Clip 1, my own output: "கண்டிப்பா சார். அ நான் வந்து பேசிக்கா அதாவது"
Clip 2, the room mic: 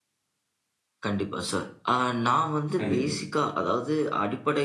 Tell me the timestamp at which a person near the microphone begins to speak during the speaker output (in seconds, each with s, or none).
2.8 s